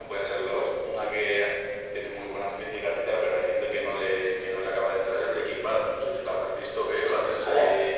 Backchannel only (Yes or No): No